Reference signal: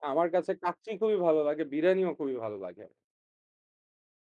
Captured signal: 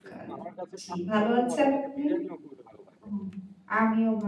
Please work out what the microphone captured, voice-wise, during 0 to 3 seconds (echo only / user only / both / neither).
both